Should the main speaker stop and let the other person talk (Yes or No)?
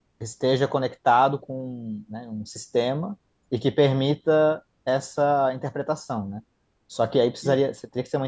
No